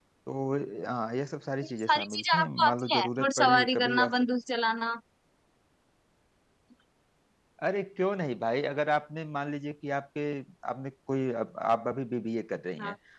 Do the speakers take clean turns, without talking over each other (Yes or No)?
No